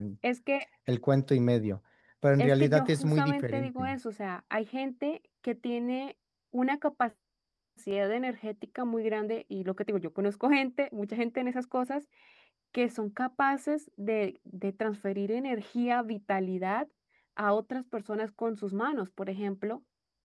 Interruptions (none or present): present